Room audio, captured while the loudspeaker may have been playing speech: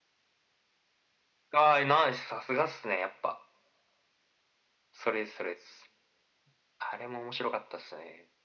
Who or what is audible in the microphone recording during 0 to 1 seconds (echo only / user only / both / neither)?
neither